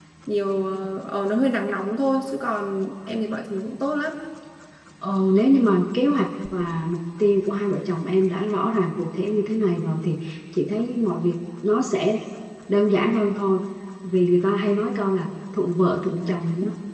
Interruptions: none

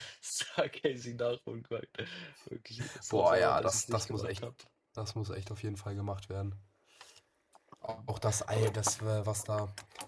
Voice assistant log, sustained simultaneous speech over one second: present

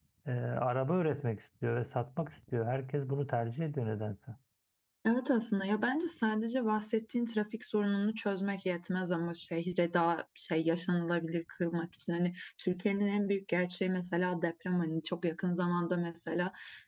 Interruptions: none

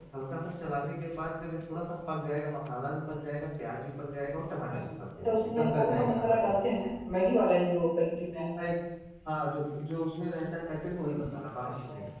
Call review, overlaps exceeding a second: present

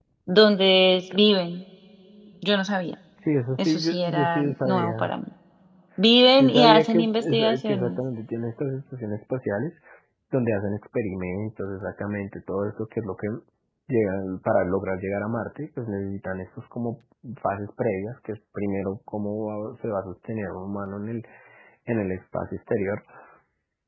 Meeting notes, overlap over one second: present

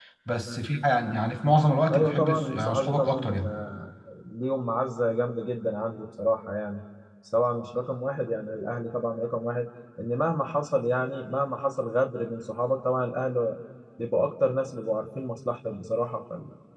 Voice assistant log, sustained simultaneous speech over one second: present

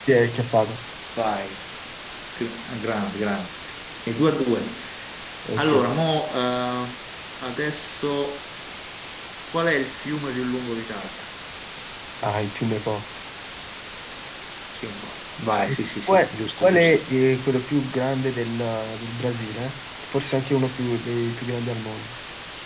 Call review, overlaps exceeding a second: present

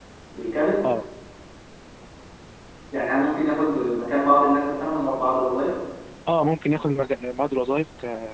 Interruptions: none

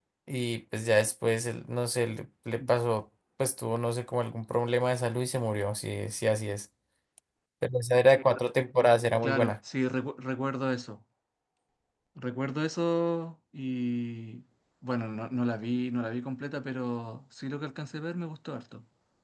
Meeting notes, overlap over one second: none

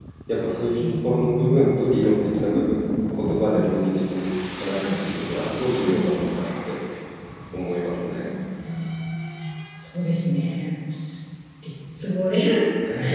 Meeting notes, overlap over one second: present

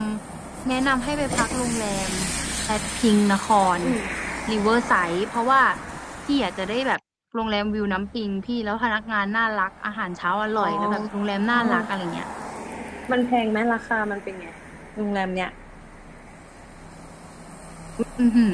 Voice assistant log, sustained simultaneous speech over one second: none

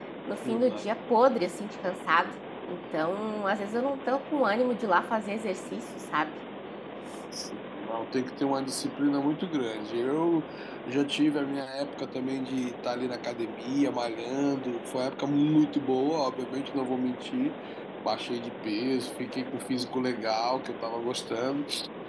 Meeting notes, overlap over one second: none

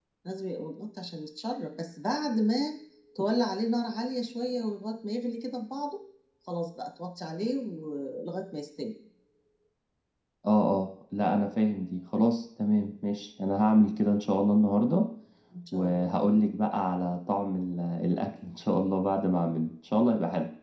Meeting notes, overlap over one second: none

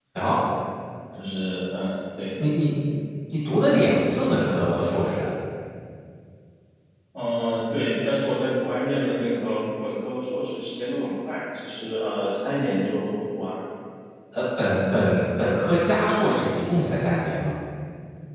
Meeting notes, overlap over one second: none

